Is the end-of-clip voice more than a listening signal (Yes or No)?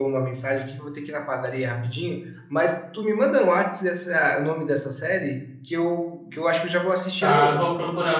Yes